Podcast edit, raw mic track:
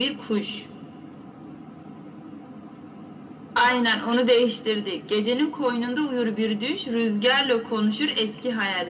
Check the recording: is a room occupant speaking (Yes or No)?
No